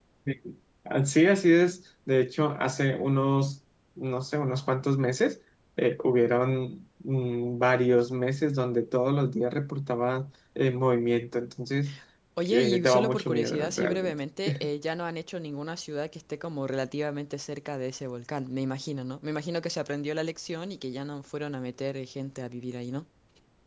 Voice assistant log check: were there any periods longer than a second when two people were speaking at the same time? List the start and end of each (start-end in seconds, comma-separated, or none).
12.5-14.2